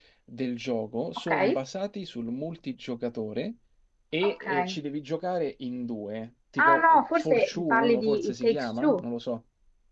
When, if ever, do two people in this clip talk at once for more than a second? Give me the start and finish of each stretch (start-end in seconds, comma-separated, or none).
6.6-9.0